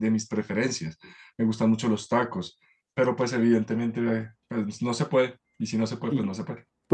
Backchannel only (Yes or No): No